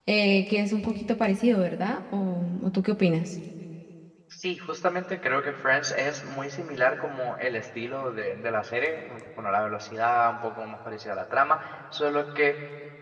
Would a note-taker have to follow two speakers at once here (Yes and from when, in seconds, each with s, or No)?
No